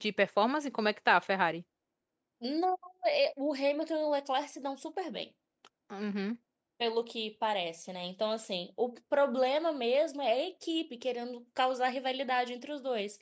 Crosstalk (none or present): none